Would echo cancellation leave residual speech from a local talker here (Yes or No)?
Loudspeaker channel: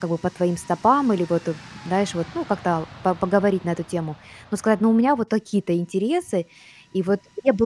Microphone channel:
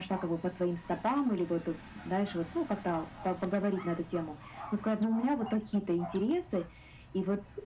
No